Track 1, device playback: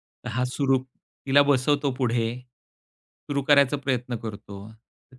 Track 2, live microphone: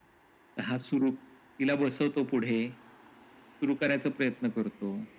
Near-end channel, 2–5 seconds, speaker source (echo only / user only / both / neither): echo only